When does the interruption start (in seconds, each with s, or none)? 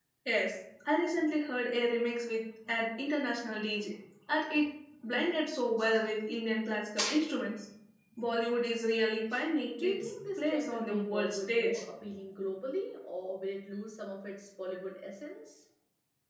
9.8 s